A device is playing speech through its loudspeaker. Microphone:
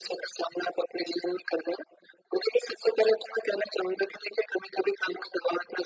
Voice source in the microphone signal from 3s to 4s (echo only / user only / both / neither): echo only